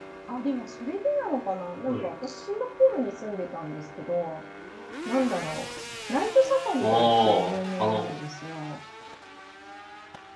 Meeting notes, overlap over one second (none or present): present